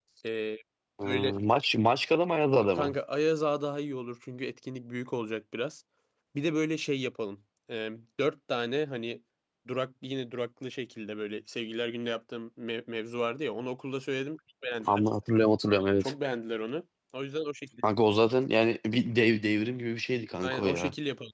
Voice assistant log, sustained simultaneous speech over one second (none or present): none